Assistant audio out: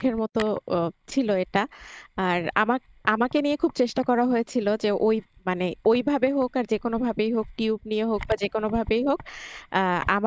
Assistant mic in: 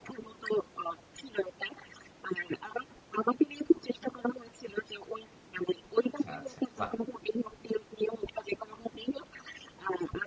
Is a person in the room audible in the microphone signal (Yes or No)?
Yes